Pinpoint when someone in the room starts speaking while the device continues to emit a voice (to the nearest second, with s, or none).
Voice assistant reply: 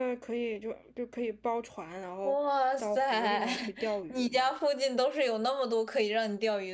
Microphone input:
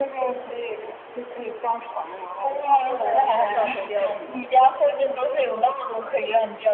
3 s